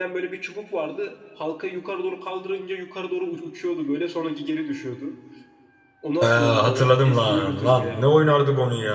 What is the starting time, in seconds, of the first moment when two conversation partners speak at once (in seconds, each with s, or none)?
6.2 s